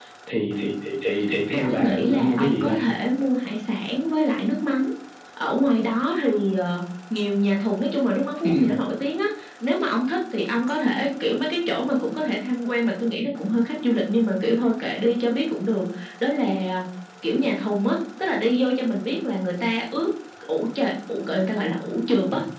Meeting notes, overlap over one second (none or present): present